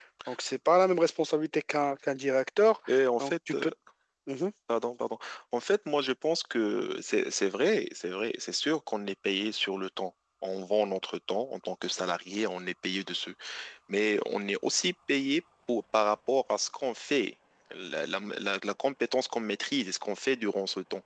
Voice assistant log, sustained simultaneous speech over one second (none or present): none